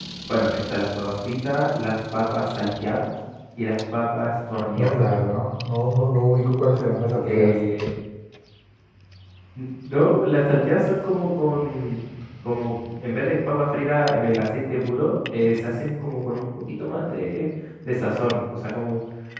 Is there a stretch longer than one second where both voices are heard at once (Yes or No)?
No